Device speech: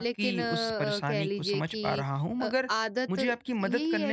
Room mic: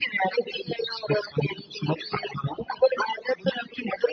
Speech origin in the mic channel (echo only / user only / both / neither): echo only